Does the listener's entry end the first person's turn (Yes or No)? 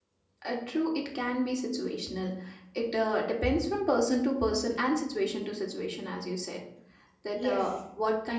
No